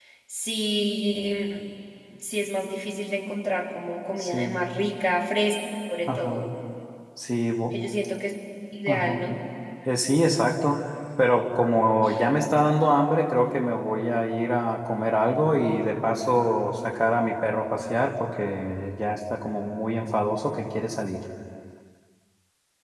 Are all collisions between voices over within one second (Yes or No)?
Yes